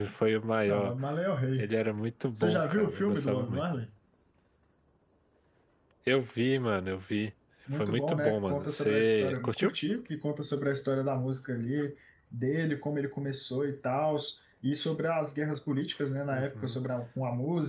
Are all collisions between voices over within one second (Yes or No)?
No